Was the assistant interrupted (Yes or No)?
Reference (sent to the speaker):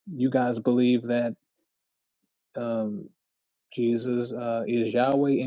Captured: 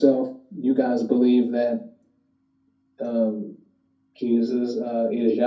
No